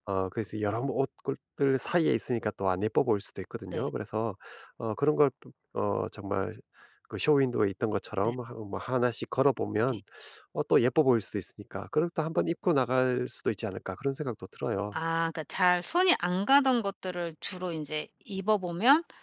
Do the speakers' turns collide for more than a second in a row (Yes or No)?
No